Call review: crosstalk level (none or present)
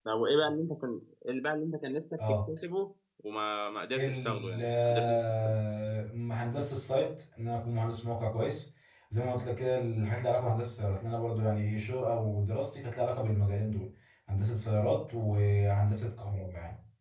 present